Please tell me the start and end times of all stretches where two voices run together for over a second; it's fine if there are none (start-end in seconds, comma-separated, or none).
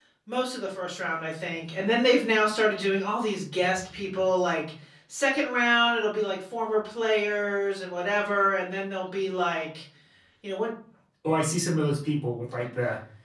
none